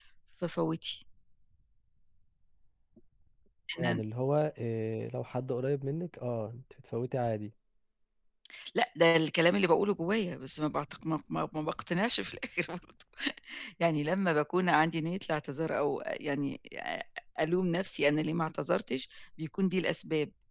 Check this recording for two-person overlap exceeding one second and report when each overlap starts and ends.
none

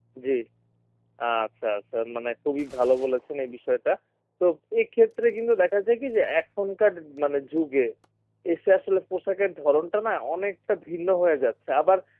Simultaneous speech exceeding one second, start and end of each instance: none

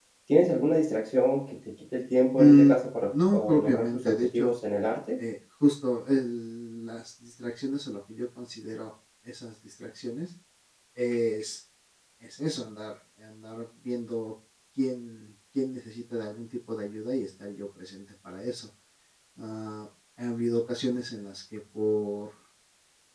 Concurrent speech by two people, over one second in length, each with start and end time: 3.1-4.5

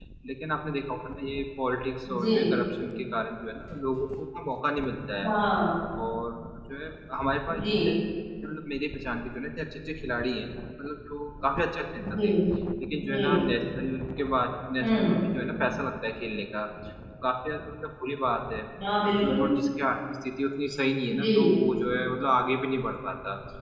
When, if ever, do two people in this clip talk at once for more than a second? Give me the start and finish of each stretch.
none

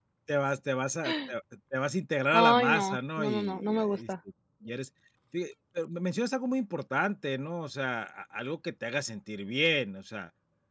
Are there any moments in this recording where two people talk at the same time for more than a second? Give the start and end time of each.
2.3-4.1

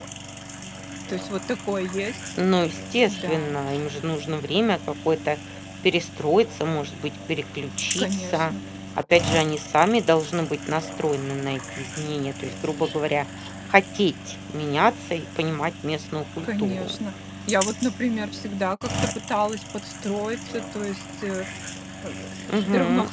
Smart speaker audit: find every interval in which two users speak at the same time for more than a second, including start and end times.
none

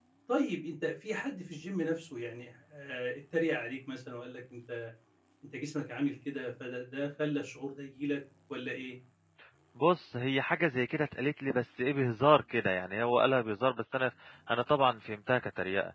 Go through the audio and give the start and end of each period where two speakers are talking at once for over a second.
none

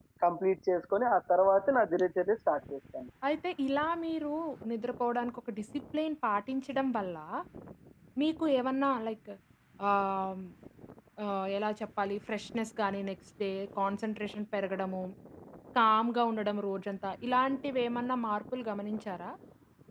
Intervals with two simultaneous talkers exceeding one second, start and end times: none

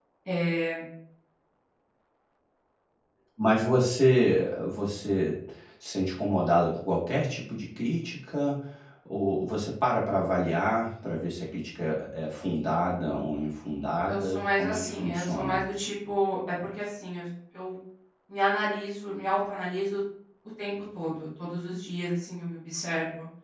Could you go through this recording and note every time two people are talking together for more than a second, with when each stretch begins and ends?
14.1-15.6

